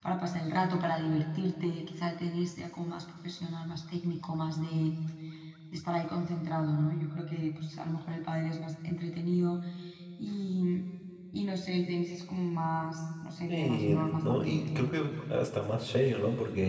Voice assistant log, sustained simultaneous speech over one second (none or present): present